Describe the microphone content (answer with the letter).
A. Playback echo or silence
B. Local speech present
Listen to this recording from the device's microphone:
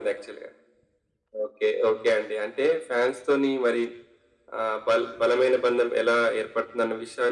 A